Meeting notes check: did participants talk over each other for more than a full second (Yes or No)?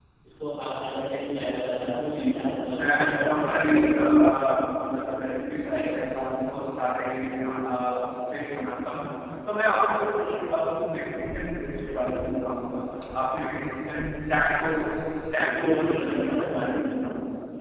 Yes